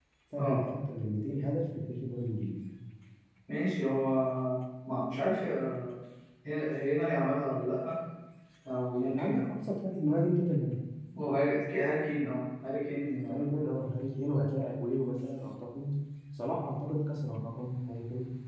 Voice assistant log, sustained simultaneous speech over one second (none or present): none